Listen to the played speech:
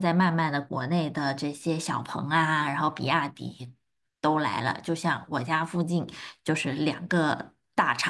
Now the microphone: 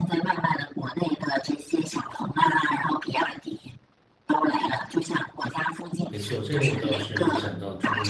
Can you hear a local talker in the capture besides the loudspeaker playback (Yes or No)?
Yes